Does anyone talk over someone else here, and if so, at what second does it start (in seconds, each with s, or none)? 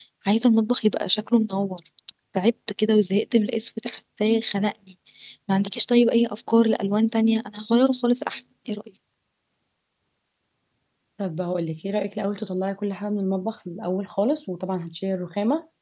none